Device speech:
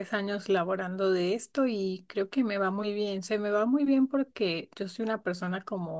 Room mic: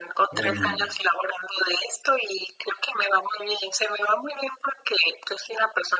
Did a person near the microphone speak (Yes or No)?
Yes